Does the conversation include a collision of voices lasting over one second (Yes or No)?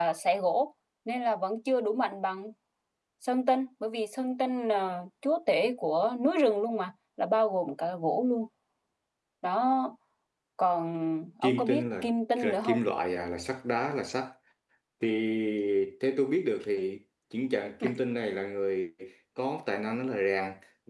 Yes